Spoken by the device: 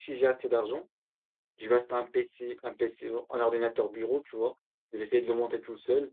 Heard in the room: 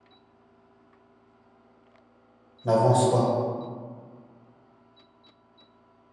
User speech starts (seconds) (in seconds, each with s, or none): 2.6 s